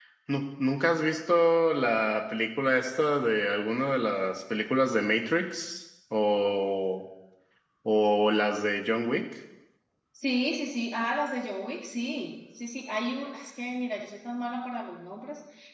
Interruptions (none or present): none